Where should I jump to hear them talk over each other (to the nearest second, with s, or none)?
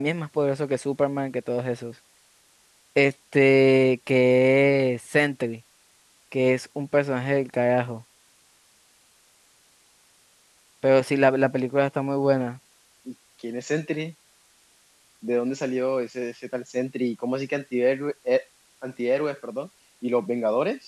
none